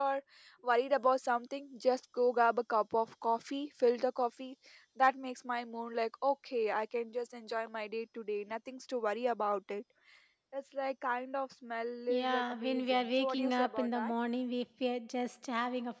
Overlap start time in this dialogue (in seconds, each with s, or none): 12.1 s